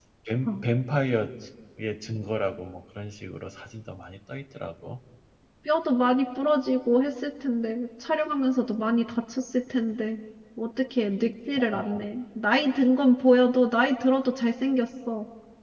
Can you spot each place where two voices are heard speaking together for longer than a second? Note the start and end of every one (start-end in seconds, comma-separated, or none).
none